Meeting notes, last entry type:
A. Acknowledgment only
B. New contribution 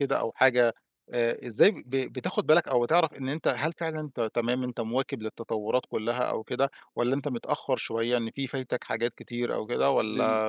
B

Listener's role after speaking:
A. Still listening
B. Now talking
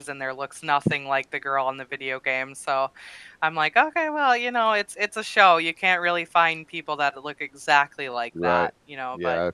B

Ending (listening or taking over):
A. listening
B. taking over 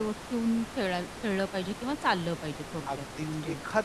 B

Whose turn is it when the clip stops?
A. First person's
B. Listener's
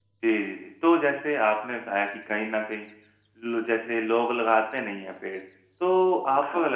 A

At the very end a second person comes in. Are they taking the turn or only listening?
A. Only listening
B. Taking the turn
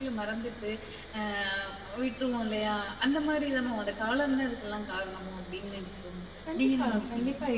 B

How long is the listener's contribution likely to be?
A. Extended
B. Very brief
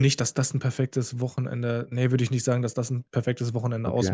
A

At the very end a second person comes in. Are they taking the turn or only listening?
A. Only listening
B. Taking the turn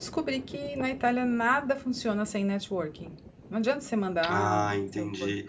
B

